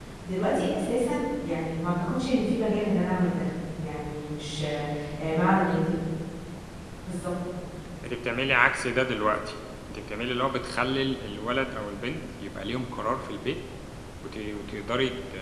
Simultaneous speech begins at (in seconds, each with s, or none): none